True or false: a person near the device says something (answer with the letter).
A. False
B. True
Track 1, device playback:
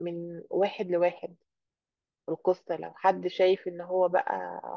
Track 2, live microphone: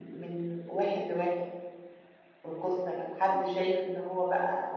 A